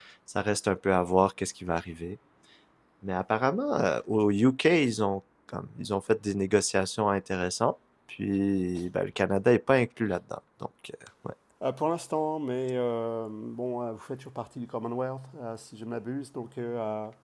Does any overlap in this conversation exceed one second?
No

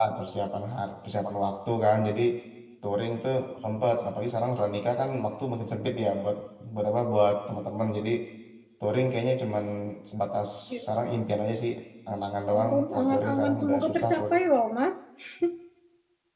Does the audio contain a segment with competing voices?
Yes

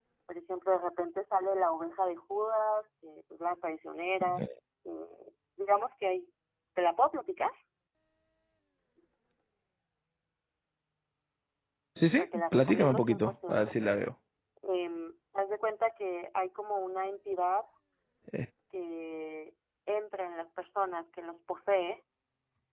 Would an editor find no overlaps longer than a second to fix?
No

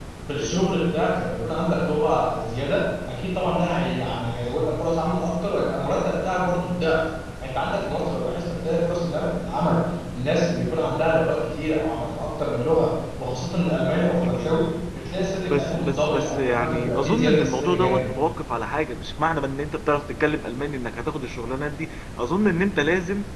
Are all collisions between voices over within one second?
No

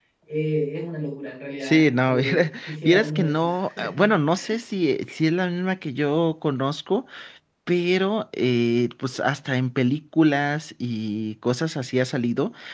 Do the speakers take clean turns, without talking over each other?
No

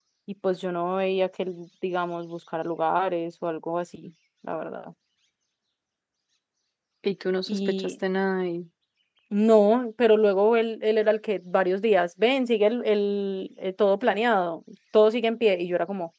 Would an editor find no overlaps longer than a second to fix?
Yes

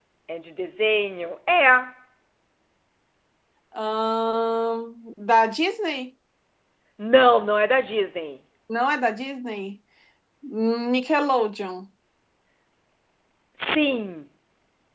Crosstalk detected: No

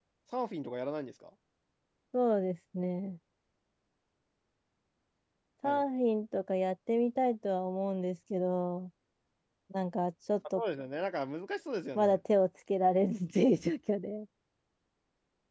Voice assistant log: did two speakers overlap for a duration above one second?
No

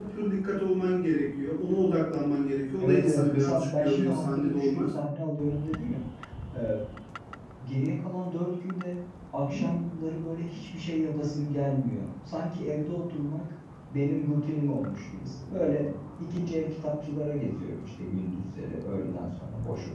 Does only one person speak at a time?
No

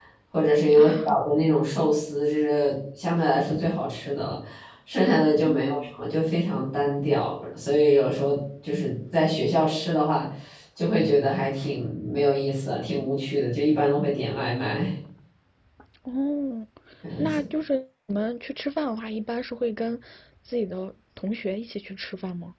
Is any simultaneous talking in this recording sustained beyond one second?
No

